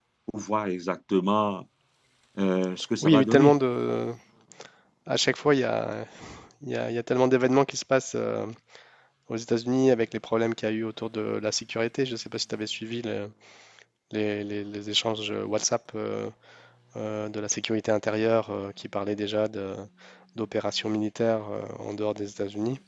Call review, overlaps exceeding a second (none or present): none